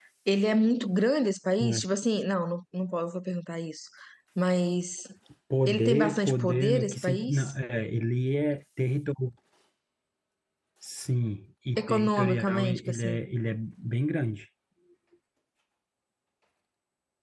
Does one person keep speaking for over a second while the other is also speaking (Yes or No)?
Yes